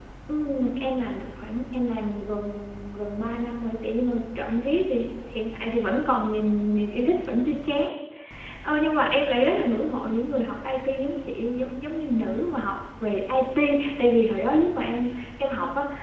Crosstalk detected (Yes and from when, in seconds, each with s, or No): No